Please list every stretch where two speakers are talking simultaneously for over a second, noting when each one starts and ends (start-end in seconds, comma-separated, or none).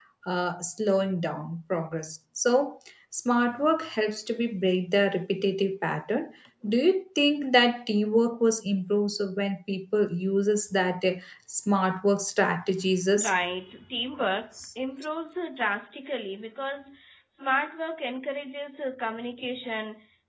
none